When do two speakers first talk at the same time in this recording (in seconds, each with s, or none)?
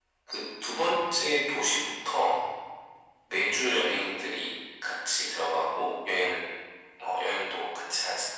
none